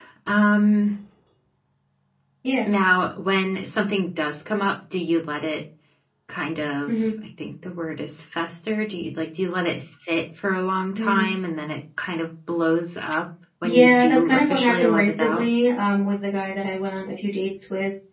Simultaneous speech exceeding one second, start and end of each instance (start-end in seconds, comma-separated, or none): 13.6-15.4